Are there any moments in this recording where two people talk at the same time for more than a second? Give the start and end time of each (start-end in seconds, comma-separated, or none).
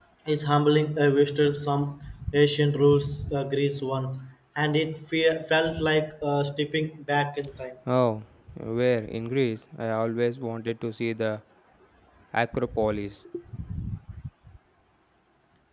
none